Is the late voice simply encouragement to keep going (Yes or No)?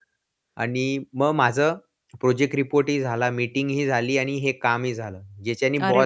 No